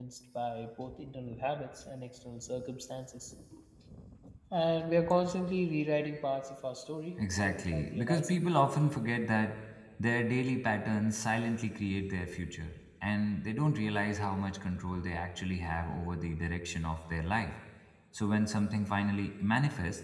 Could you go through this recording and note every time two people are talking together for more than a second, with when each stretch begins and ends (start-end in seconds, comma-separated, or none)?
7.2-8.5